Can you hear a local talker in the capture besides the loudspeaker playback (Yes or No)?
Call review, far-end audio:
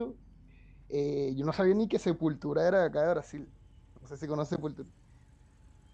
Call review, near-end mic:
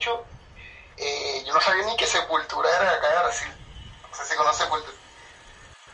No